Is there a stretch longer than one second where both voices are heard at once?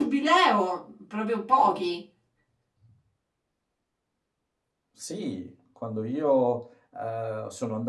No

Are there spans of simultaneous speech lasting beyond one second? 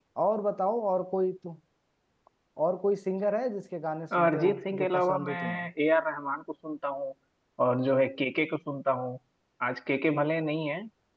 Yes, from 4.1 s

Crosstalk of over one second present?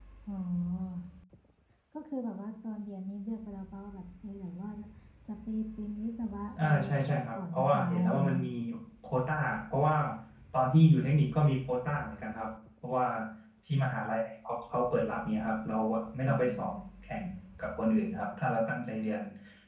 Yes, from 6.6 s

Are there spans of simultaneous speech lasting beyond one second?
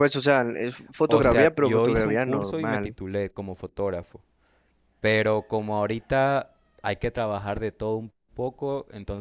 Yes, from 1.1 s

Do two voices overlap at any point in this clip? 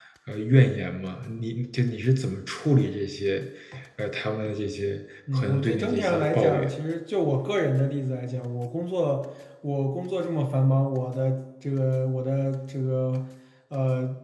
Yes, from 5.3 s

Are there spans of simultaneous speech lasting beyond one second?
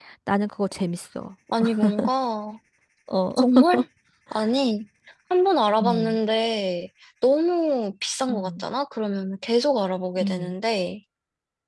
No

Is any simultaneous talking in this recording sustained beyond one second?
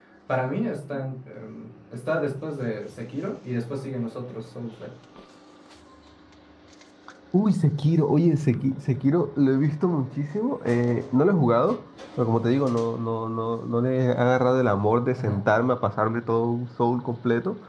No

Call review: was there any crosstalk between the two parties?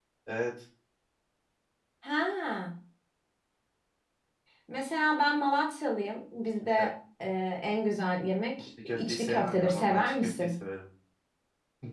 Yes, from 8.6 s

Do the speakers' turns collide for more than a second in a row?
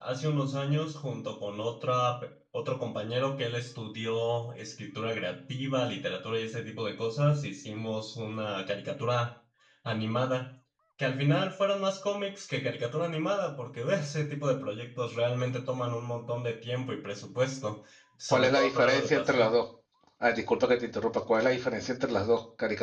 Yes, from 18.3 s

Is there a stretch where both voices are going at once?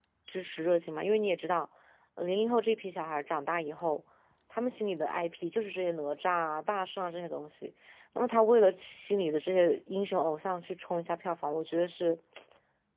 No

